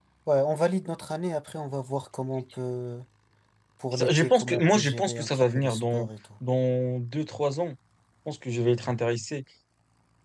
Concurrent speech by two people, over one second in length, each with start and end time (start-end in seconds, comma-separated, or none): 3.9-6.1